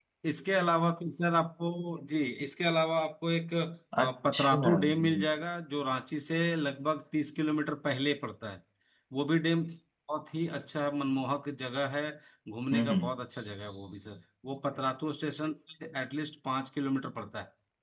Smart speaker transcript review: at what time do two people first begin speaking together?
4.0 s

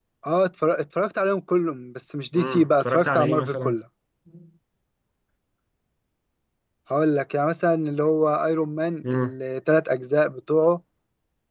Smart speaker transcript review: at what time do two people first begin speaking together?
2.4 s

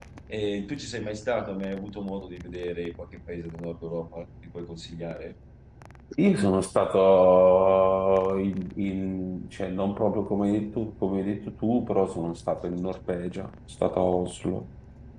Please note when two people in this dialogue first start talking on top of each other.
none

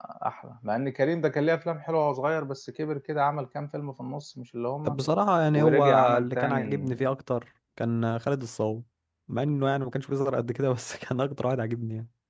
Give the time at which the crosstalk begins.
5.5 s

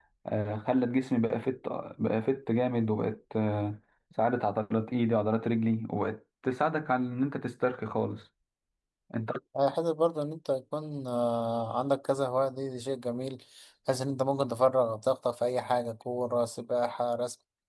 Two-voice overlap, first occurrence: none

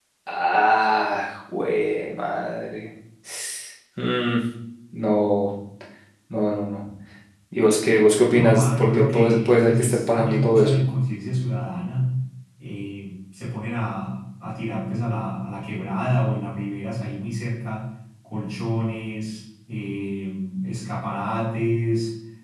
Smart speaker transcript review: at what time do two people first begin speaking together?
8.3 s

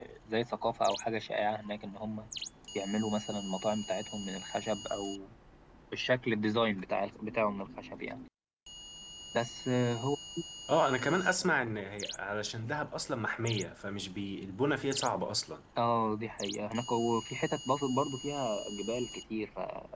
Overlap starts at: none

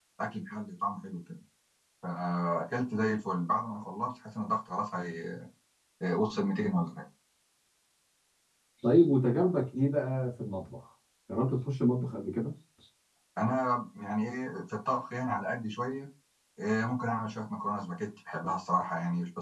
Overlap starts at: none

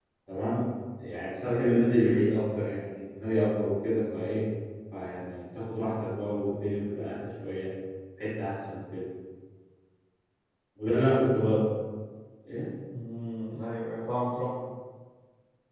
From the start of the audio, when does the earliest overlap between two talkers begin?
none

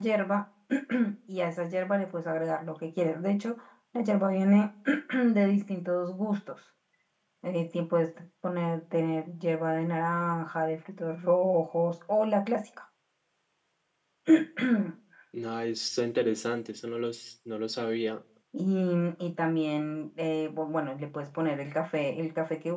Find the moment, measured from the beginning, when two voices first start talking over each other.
none

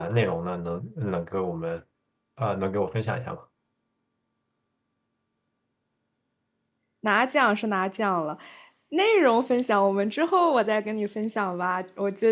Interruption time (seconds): none

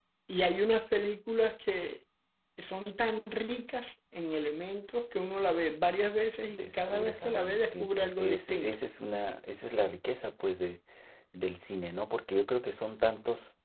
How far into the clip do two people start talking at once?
6.5 s

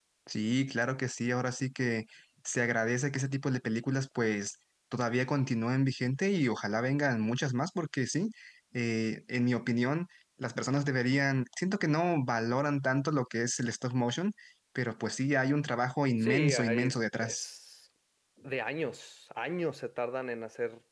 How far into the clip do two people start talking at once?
16.2 s

